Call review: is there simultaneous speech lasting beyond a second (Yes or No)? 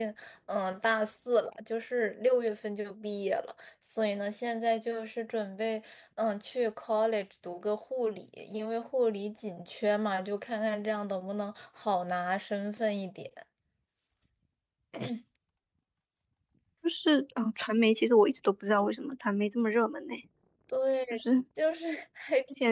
No